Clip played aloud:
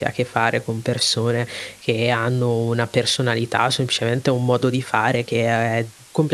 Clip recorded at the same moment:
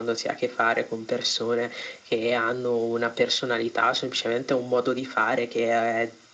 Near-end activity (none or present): none